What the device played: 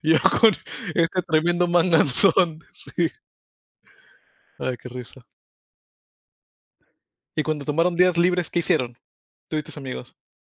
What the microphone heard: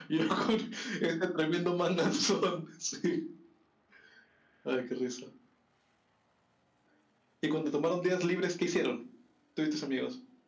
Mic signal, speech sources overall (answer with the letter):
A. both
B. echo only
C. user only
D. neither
B